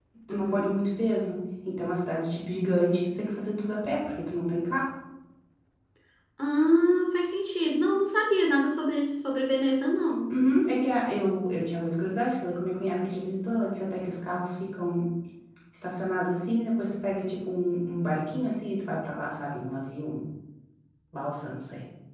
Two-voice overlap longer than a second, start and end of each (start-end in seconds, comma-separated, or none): none